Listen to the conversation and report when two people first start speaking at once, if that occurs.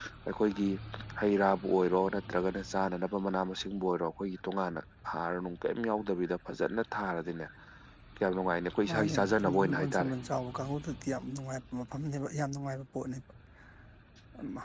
8.9 s

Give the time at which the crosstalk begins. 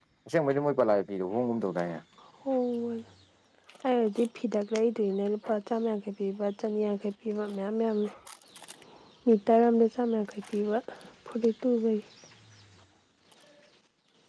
none

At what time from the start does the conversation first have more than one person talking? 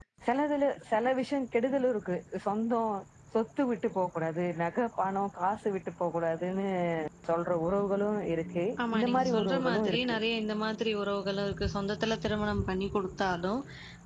8.8 s

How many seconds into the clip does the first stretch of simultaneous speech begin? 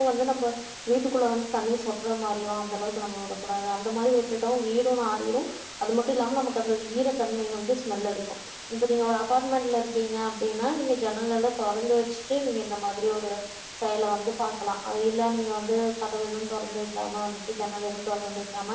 none

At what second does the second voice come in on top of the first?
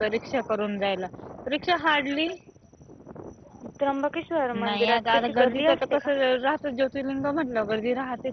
4.6 s

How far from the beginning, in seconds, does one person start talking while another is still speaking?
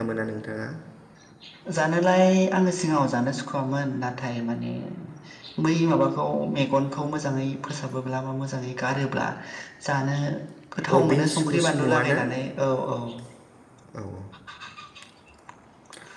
11.0 s

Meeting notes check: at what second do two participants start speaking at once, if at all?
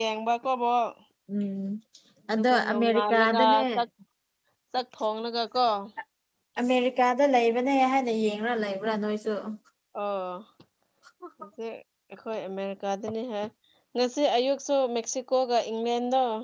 2.3 s

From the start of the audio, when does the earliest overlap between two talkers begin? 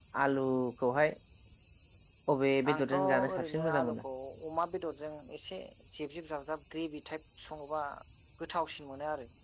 2.7 s

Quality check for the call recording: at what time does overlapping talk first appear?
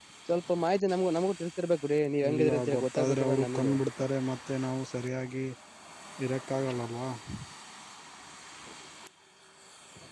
2.2 s

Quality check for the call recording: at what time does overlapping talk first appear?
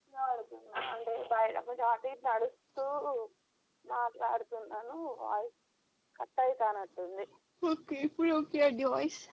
none

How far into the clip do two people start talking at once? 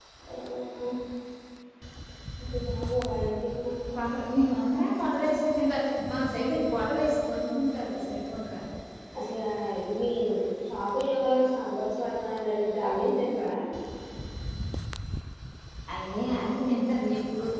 none

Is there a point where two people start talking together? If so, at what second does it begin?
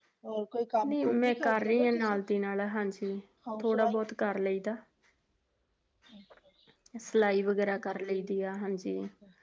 0.8 s

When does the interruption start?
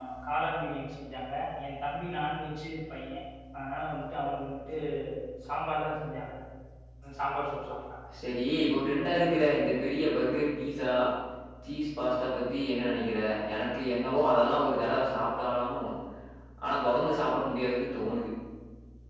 none

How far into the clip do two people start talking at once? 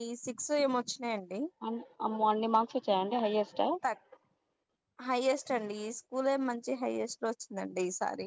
none

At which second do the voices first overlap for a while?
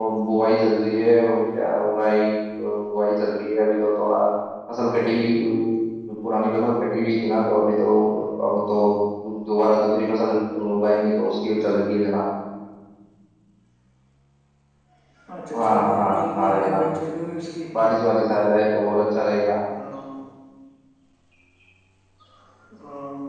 15.6 s

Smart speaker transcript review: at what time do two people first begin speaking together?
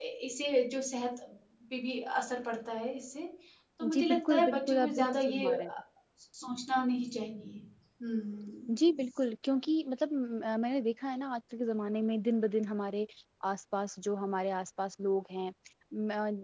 3.9 s

